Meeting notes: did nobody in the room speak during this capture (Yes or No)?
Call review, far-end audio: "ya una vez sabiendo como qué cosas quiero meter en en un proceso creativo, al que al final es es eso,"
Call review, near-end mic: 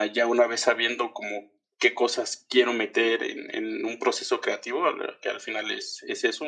Yes